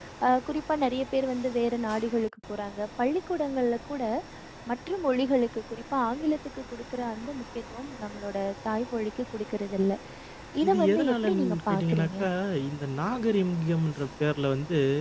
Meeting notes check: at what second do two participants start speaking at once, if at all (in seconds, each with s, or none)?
10.7 s